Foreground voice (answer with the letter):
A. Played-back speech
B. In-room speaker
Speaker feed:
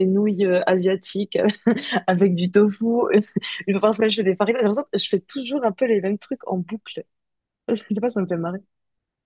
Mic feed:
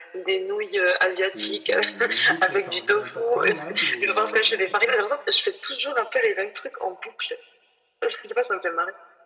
A